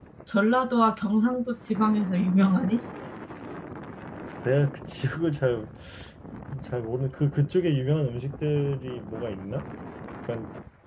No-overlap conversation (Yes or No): Yes